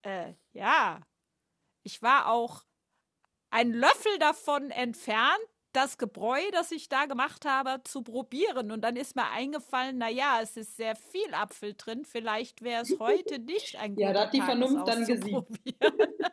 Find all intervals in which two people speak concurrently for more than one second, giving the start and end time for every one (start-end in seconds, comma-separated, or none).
14.0-15.4